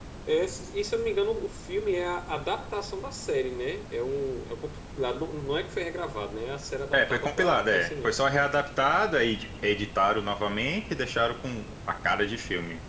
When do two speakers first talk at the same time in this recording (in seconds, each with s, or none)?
6.9 s